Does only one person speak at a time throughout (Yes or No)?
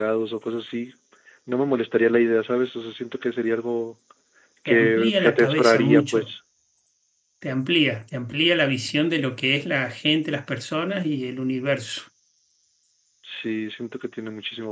No